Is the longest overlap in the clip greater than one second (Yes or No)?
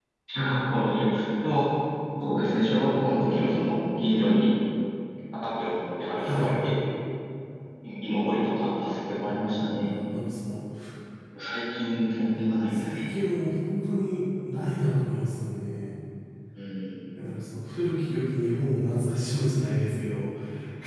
No